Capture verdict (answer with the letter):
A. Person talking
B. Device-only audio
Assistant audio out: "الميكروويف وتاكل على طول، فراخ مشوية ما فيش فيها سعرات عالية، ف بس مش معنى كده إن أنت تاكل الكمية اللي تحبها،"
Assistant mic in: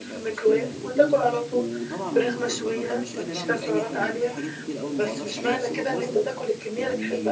A